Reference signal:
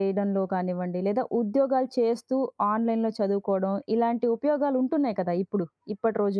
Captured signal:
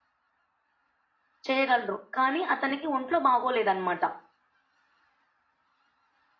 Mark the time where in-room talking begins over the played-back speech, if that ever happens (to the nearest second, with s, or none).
1 s